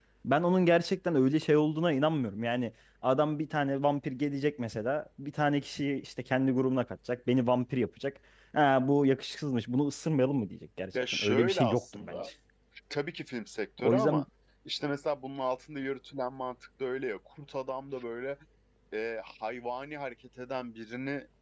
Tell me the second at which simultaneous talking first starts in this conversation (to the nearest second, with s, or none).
11 s